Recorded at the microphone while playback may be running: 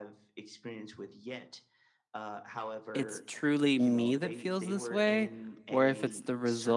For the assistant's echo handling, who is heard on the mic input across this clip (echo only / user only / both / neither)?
both